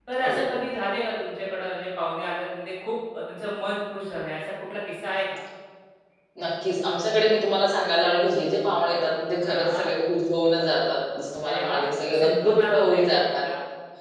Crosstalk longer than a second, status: present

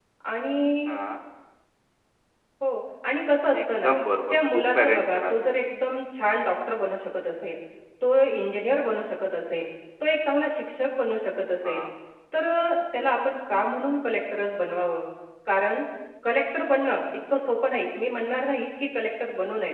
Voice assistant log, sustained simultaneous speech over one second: present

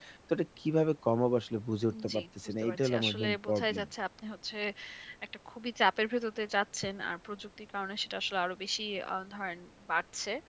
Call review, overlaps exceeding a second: present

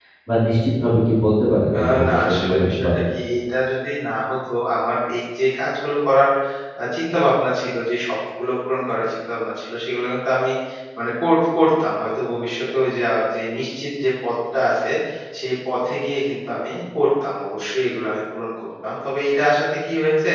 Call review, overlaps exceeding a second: present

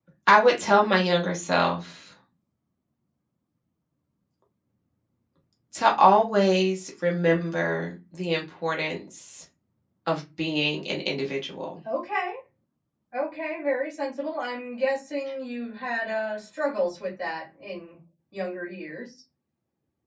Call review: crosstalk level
none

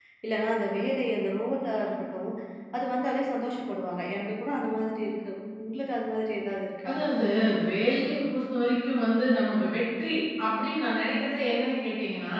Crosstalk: none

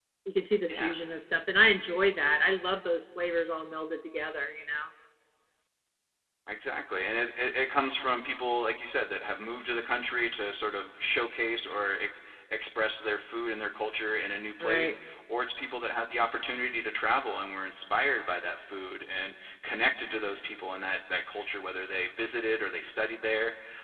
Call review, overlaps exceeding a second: none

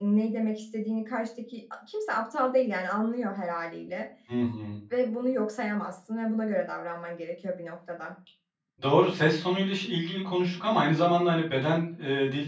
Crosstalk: none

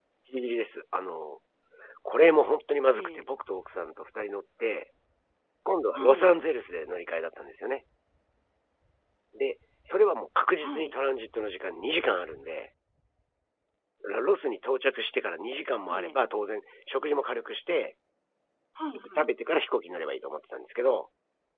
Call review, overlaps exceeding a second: none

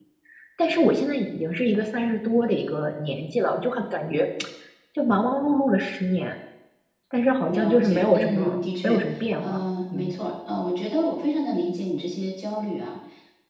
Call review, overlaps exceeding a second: present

